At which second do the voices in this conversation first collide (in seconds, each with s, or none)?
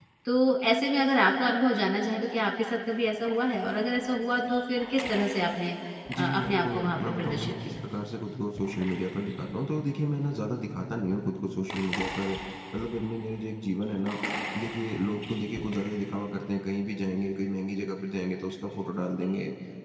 6.2 s